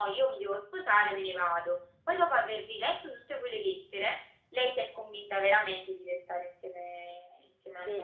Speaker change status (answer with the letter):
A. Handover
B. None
A